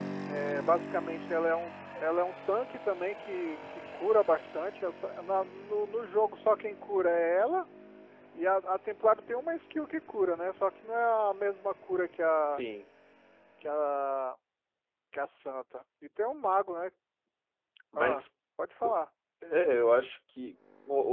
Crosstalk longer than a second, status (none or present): none